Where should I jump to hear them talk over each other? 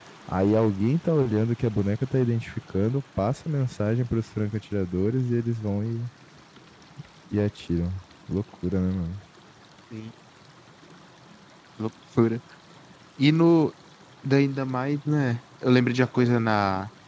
none

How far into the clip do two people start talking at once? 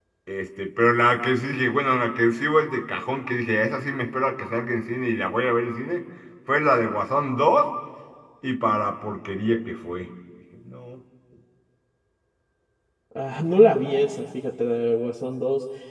none

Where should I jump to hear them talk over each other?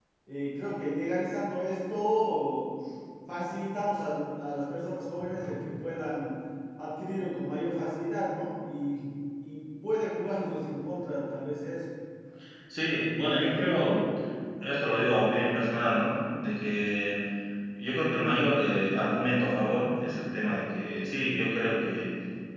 none

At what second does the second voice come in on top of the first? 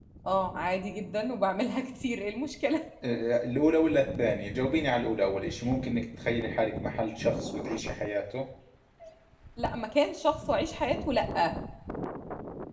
none

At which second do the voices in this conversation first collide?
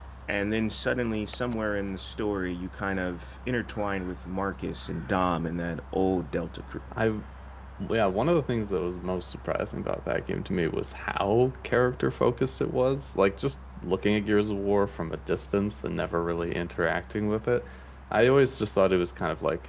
none

